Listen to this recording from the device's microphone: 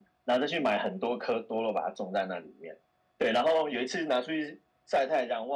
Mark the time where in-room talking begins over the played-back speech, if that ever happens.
none

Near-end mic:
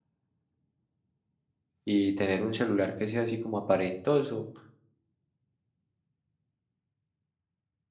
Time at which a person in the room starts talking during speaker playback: 1.8 s

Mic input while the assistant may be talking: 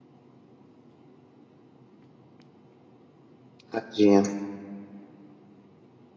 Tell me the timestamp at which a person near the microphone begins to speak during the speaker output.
3.7 s

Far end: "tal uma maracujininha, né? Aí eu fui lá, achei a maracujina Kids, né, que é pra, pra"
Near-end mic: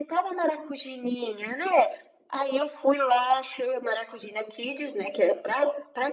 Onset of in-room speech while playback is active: none

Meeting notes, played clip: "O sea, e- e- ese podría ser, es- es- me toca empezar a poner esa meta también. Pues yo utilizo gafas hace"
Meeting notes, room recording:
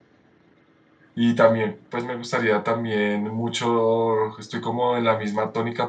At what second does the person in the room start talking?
1.1 s

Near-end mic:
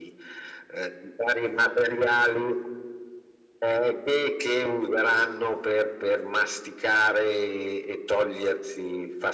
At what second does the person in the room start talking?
none

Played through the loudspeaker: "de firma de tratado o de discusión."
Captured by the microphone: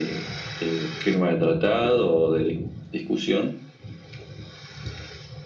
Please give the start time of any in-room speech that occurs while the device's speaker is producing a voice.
none

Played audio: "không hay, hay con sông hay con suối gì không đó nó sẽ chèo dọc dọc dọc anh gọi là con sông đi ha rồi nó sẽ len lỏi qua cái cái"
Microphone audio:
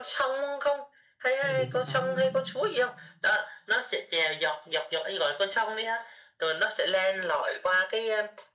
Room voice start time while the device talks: 1.4 s

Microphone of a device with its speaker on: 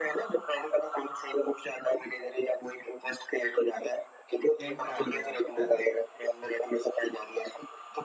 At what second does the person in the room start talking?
4.6 s

